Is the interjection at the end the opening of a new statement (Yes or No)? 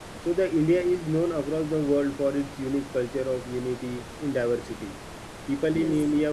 No